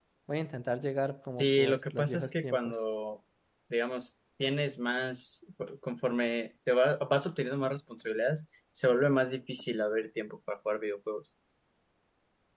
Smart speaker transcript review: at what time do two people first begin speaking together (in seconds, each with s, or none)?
1.3 s